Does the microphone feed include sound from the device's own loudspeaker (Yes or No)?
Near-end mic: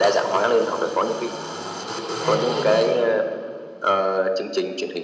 Yes